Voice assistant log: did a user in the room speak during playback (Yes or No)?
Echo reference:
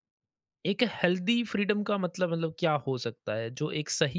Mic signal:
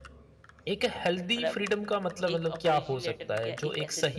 Yes